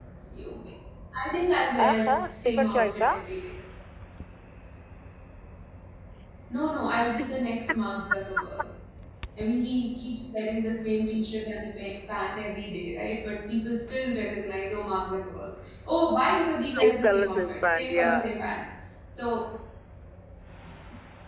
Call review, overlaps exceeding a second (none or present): present